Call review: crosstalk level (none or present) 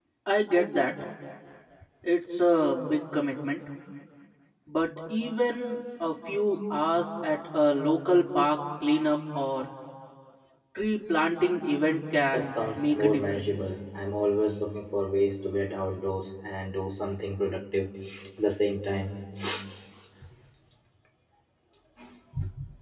present